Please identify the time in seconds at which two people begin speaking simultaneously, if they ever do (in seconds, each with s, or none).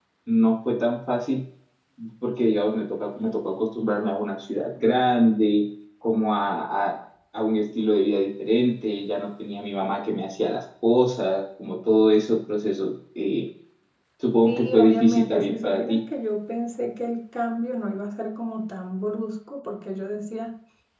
14.4 s